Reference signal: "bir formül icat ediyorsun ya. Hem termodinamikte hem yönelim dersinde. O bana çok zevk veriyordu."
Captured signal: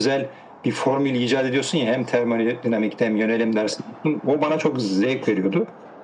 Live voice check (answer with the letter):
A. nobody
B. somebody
A